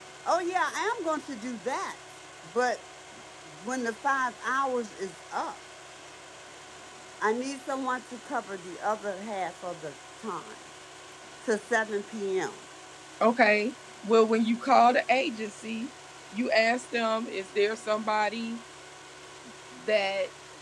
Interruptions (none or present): none